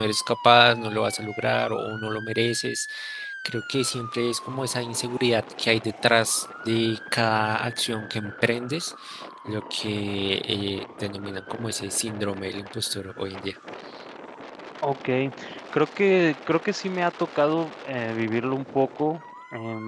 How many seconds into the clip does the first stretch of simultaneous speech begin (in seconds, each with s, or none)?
none